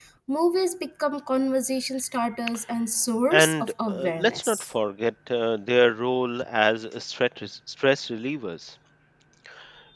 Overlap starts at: 3.3 s

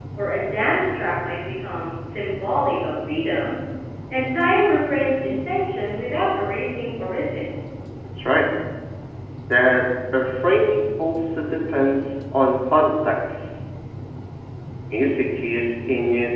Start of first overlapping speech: none

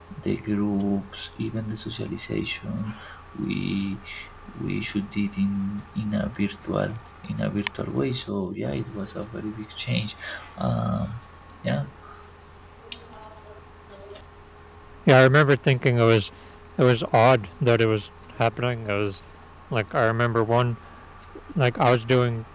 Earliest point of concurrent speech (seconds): none

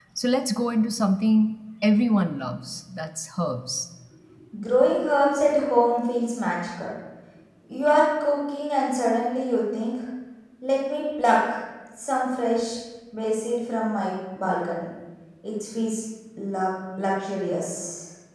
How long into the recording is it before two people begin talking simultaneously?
none

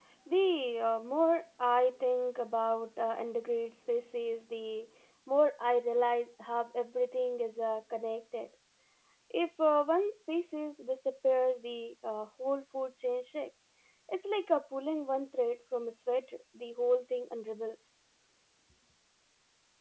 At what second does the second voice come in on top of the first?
none

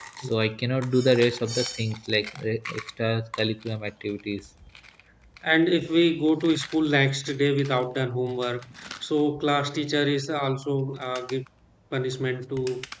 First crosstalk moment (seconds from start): none

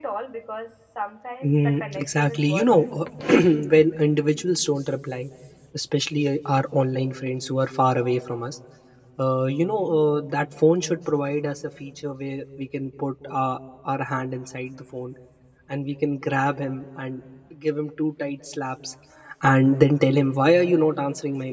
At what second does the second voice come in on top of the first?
1.4 s

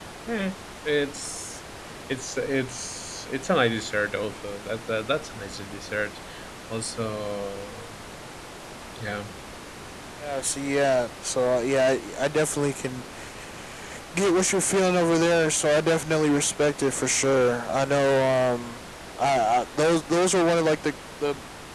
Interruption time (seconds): none

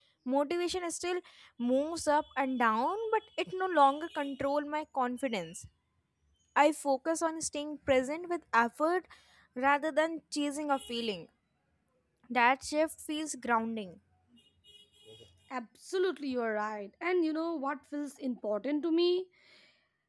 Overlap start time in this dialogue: none

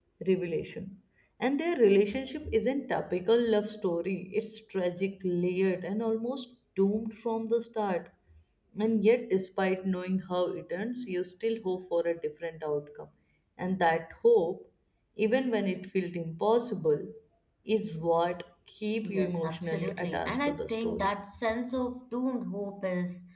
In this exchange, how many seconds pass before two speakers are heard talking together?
19.0 s

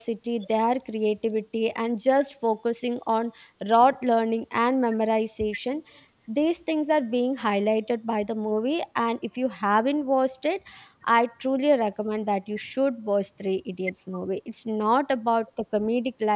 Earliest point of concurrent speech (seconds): none

